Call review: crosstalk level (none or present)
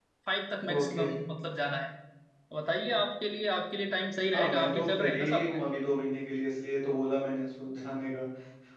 present